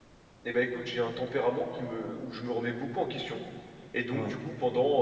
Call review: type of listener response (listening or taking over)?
listening